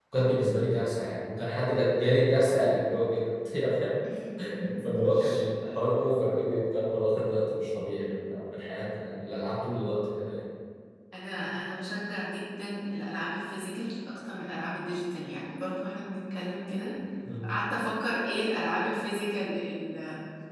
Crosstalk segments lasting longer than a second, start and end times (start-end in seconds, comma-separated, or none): none